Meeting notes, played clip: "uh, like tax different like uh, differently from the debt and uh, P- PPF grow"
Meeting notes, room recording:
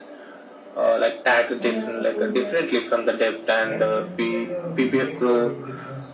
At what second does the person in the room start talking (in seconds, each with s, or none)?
1.6 s